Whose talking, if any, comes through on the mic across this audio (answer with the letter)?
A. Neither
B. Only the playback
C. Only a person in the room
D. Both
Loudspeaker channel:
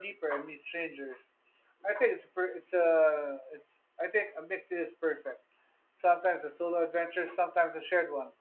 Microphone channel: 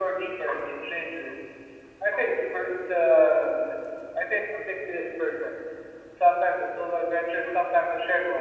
B